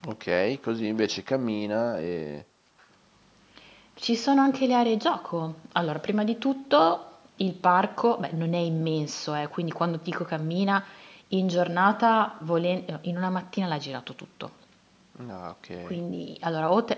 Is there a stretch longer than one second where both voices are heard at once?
No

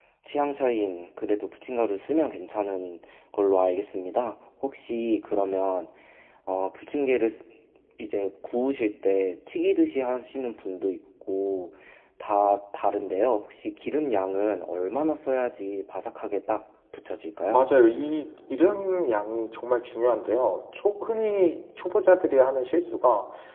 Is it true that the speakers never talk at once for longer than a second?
Yes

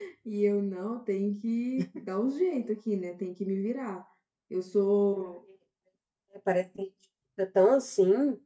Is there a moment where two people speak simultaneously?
No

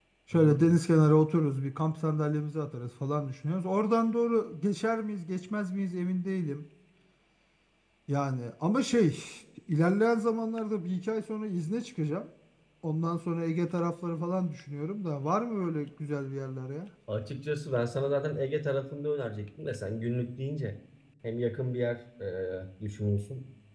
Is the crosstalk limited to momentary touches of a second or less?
Yes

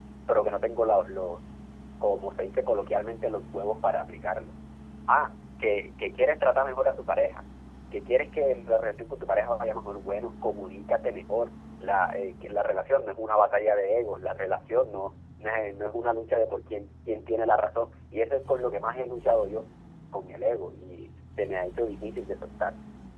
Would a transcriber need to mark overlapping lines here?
No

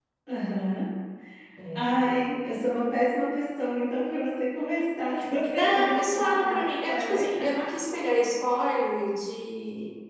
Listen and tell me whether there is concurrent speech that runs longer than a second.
Yes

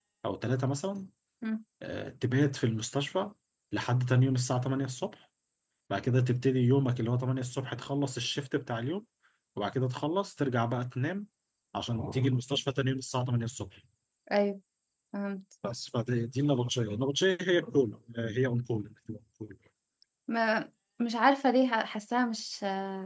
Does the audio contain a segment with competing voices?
No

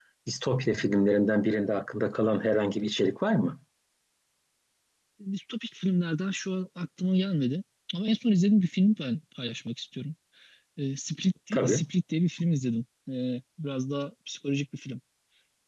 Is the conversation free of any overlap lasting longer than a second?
Yes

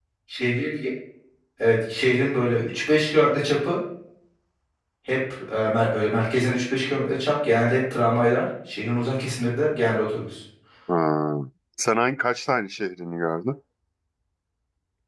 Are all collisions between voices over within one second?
Yes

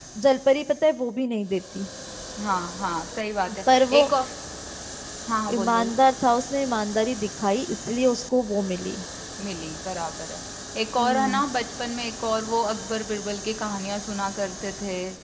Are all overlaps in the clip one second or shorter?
Yes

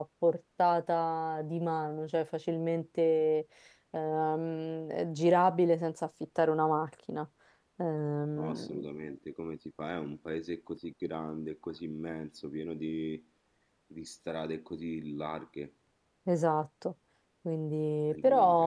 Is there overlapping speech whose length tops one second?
No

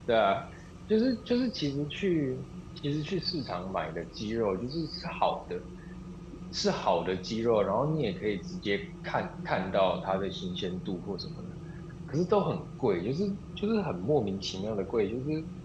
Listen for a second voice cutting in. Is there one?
No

